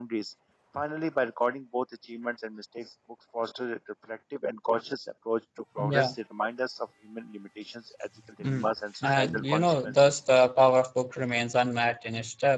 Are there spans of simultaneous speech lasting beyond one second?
Yes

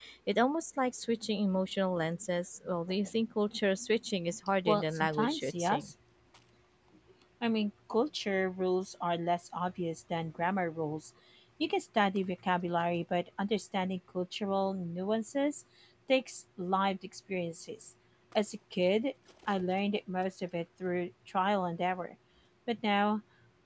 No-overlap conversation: No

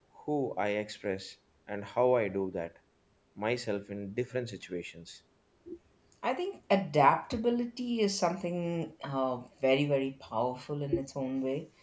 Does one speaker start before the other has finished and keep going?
No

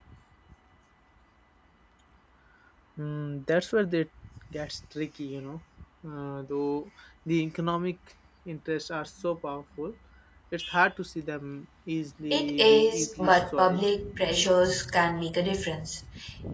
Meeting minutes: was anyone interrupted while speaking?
Yes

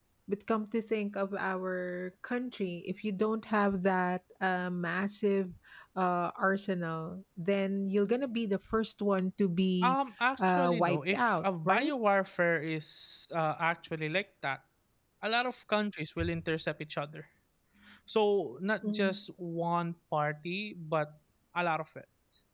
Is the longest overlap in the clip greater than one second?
Yes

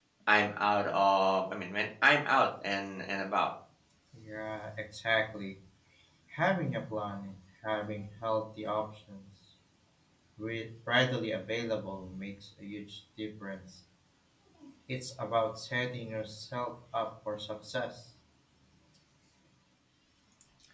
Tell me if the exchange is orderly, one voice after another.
Yes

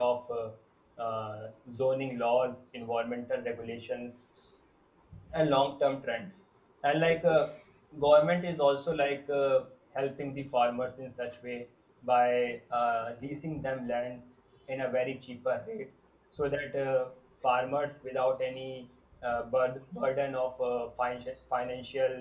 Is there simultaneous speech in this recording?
No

